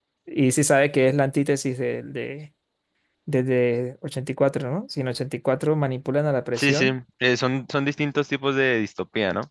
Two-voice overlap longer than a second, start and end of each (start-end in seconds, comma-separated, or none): none